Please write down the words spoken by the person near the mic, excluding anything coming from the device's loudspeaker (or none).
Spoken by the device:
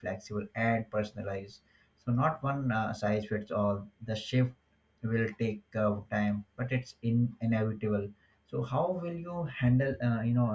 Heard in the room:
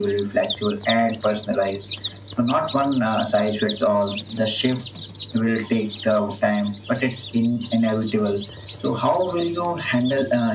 none